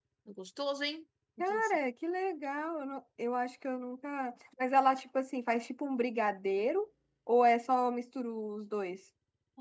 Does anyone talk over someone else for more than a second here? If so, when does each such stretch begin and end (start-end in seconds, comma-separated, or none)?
none